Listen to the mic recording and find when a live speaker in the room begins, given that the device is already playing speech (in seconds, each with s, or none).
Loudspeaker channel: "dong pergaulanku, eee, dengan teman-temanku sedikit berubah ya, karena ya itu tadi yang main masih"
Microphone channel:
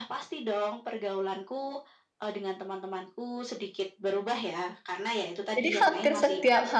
5.5 s